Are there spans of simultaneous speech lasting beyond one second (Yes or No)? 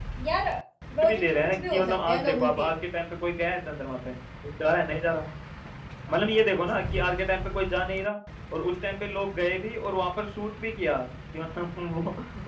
Yes